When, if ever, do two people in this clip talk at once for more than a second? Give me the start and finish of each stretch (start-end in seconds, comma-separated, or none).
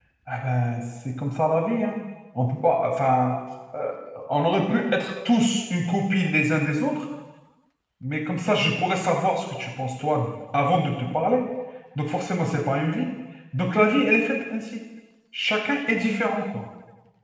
none